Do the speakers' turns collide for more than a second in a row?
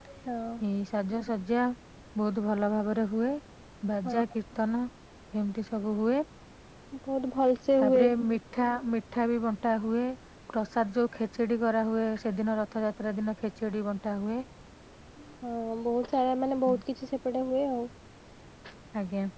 No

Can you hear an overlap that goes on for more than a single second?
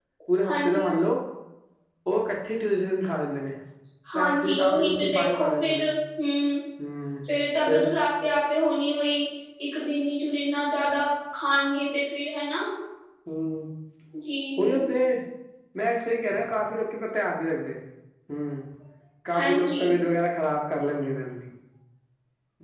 Yes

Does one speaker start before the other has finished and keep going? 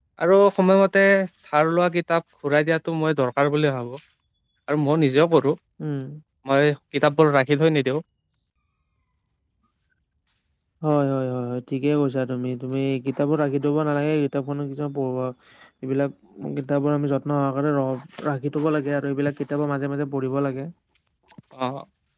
No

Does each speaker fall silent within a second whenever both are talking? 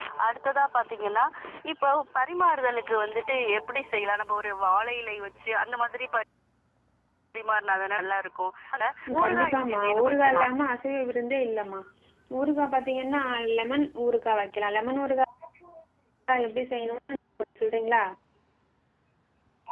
No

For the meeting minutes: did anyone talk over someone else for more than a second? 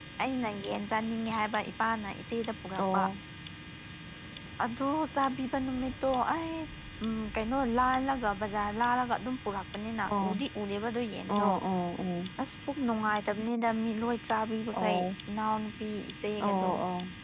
No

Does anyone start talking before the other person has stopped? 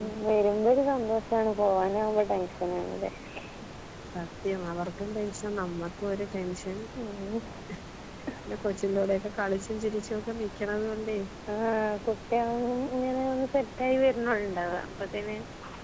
No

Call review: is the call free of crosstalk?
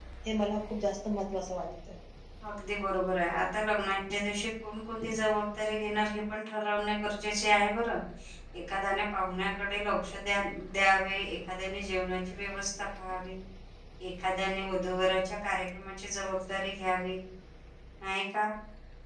Yes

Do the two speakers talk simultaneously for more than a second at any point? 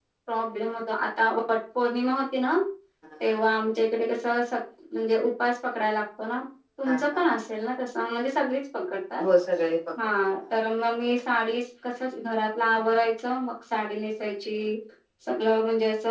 No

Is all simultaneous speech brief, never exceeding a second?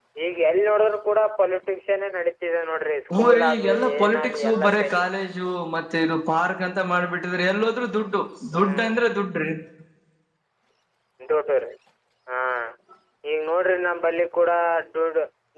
No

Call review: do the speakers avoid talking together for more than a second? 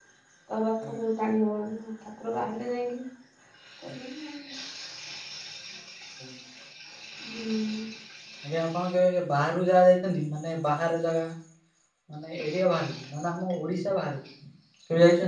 Yes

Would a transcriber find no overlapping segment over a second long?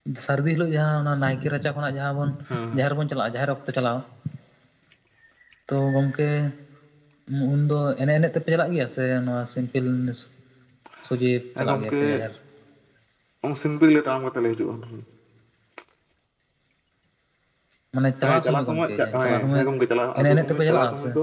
No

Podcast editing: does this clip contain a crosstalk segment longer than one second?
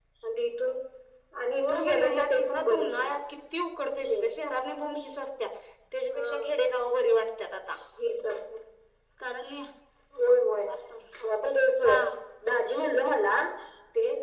Yes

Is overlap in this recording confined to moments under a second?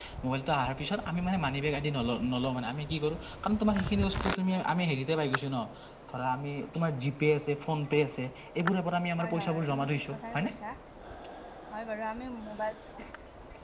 No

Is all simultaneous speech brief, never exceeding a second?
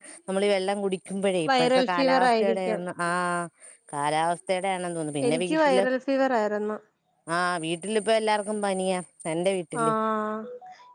No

